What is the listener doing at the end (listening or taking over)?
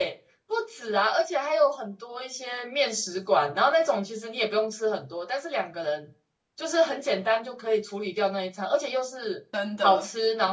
listening